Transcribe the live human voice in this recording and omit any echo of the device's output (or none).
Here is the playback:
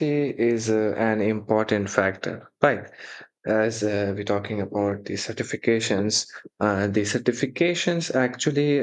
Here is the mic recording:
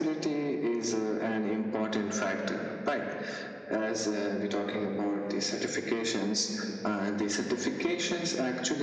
none